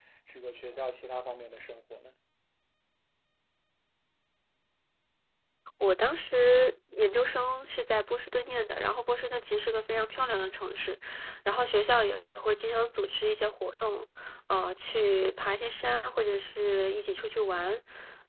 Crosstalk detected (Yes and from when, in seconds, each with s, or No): No